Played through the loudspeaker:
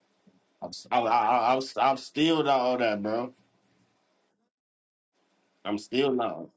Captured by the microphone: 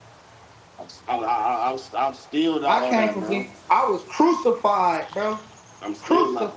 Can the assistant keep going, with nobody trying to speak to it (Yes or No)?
No